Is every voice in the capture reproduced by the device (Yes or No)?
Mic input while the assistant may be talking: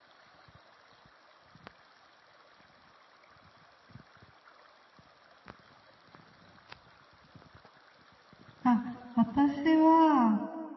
No